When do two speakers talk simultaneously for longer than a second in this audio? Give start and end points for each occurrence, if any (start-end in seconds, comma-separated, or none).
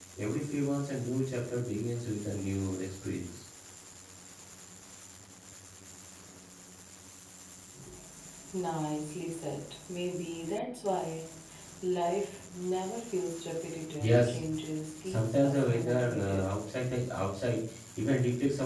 15.0-16.6